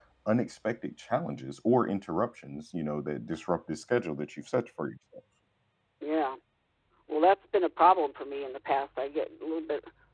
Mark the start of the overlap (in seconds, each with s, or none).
none